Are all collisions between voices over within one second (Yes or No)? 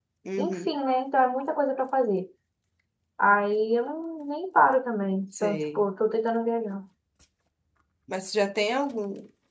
Yes